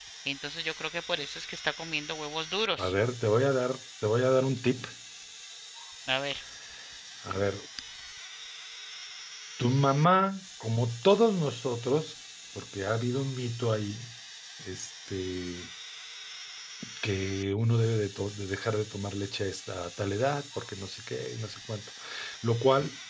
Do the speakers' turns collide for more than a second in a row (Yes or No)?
No